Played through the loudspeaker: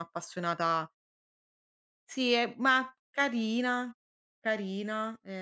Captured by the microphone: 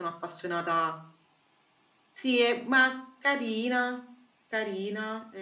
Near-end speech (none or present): none